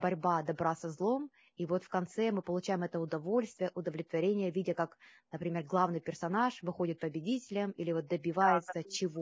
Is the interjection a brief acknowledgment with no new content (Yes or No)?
No